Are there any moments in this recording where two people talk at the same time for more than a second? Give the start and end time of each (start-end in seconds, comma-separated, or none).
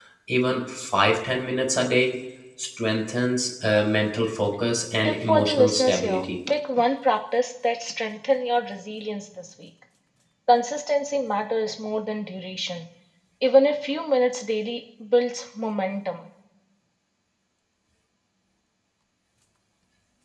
5.0-6.2